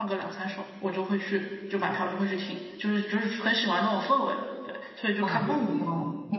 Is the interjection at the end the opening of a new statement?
Yes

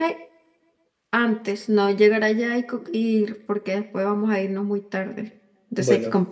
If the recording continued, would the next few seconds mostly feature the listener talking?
No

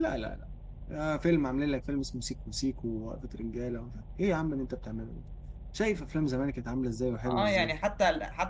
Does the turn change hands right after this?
Yes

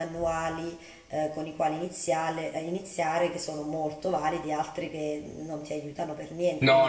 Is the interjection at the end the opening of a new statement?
Yes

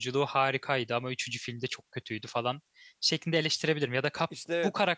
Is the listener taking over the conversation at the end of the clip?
No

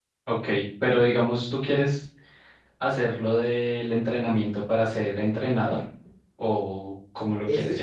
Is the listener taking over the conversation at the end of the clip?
Yes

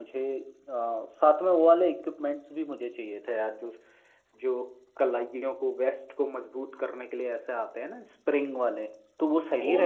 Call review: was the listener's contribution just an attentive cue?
No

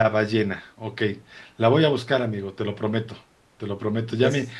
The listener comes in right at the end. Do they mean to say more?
No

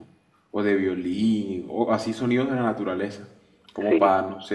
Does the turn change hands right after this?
No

